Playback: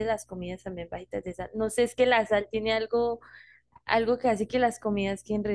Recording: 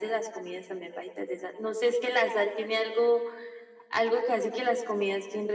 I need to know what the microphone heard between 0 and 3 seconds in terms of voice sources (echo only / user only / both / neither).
echo only